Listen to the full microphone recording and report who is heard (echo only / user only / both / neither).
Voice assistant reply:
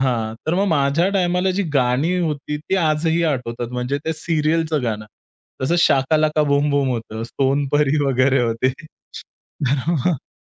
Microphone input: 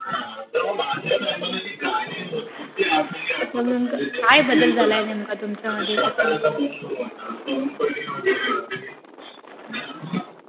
both